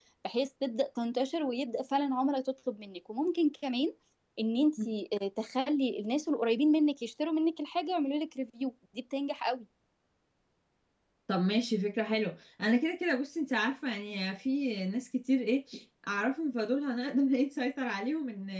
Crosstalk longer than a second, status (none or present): none